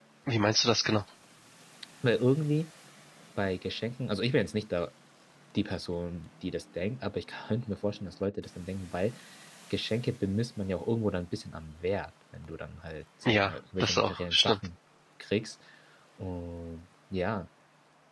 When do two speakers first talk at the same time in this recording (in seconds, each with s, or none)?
13.2 s